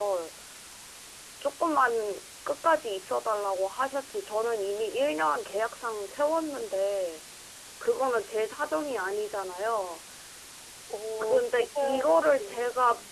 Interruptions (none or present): present